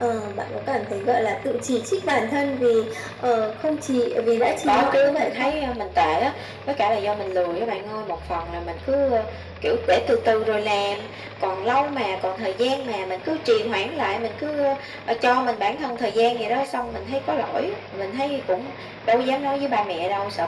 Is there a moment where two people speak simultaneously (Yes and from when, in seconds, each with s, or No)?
Yes, from 4.3 s